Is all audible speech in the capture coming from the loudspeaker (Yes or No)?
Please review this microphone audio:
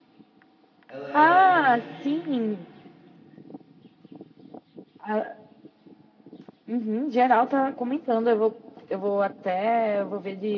No